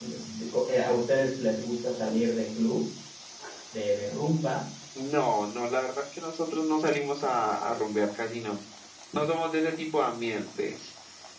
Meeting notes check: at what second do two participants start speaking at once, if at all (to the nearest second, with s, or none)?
none